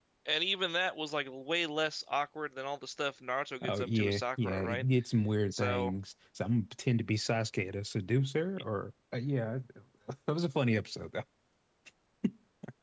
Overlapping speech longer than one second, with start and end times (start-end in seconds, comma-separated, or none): 3.6-4.8